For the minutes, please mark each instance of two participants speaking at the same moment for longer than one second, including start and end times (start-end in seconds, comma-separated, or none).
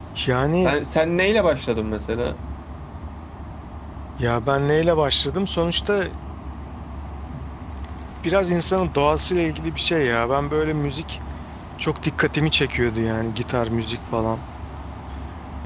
none